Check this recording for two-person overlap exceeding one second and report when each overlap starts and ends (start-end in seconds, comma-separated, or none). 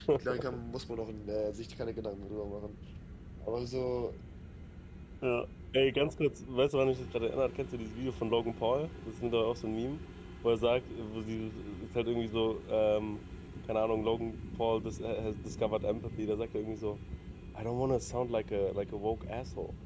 none